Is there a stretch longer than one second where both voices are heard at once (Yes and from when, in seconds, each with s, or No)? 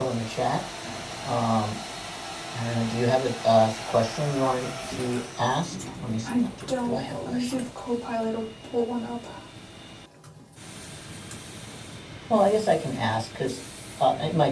Yes, from 6.2 s